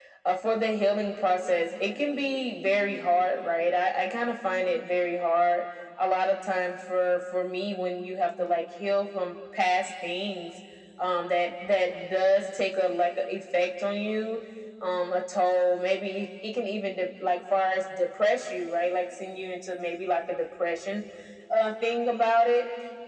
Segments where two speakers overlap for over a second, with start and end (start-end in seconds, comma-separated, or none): none